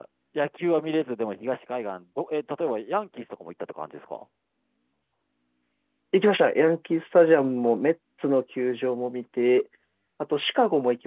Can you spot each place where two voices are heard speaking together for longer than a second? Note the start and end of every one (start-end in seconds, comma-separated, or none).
none